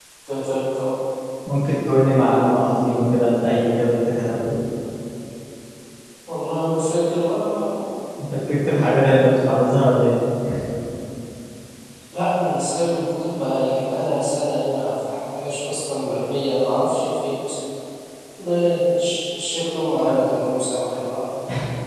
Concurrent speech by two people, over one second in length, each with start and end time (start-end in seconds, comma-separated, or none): none